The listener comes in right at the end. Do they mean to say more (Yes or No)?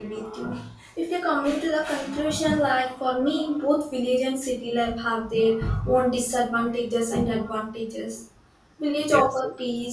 No